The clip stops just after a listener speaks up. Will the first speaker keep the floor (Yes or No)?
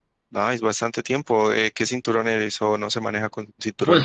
No